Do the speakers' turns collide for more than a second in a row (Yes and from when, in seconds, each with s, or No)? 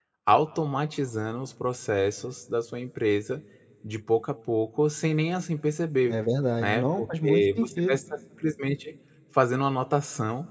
Yes, from 6.6 s